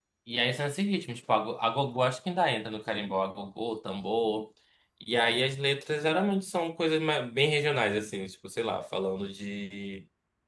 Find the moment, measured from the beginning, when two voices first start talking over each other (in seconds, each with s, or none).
none